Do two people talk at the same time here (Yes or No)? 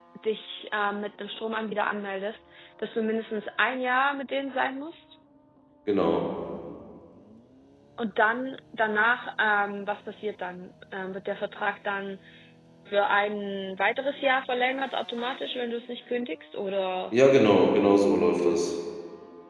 No